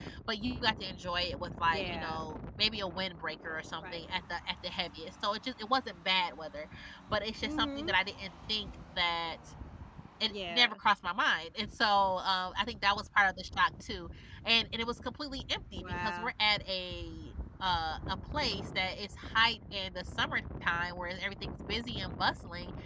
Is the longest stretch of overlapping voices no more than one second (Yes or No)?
Yes